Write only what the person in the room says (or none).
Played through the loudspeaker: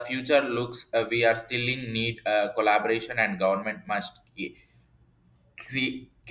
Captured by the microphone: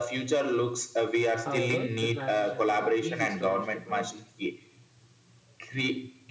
However, the transition isn't easy storage technology.